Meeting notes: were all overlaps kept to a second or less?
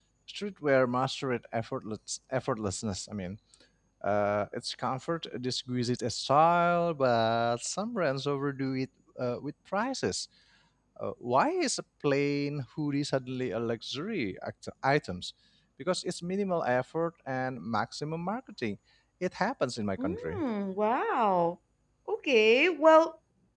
Yes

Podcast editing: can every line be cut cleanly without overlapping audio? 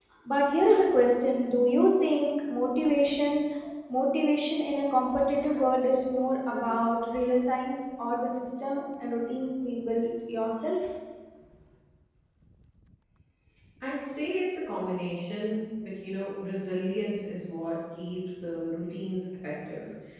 Yes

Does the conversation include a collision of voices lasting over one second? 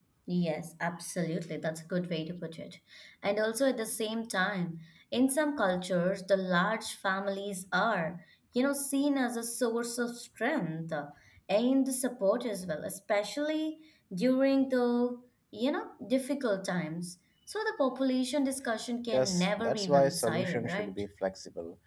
Yes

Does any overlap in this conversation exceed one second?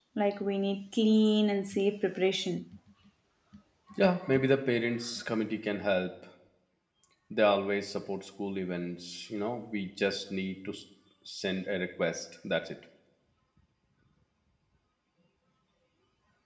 No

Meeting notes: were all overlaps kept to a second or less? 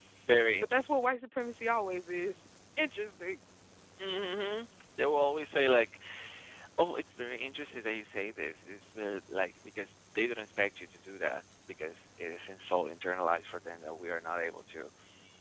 Yes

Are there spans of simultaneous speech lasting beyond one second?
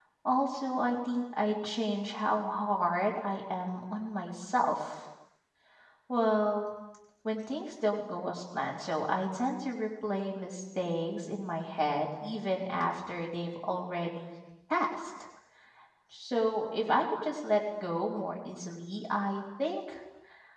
No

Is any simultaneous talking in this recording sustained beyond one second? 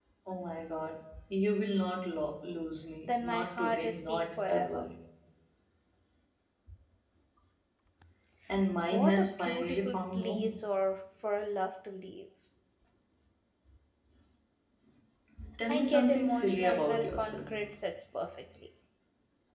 Yes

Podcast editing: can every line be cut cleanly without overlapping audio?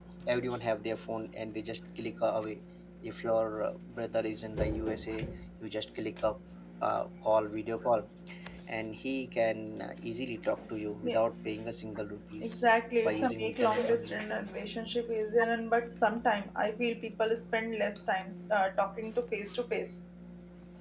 No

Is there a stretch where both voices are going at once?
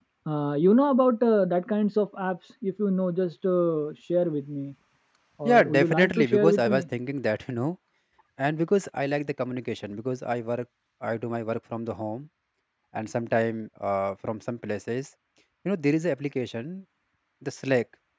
Yes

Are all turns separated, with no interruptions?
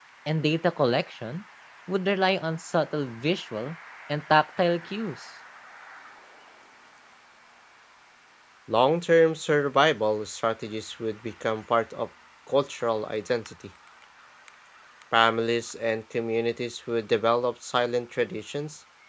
Yes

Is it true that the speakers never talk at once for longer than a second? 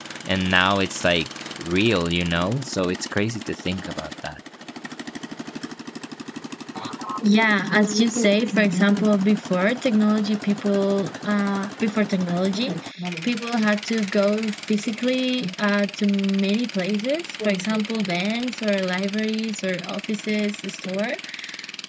Yes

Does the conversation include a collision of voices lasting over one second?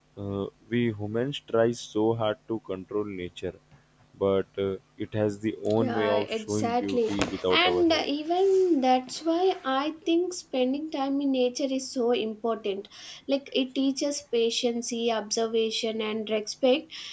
Yes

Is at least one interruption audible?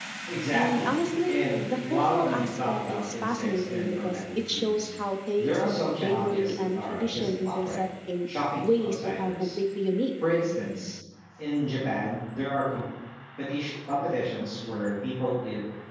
Yes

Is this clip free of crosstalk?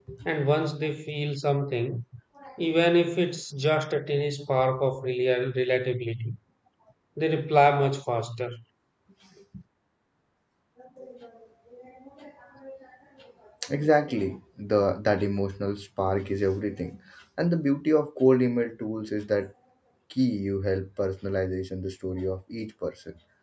Yes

